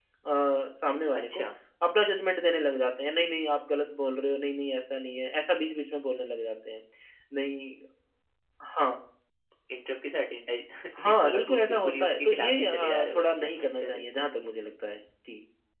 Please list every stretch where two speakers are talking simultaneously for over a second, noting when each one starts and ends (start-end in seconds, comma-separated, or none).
11.2-14.1